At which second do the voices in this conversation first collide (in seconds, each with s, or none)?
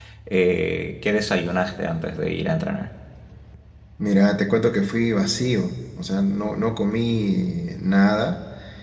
none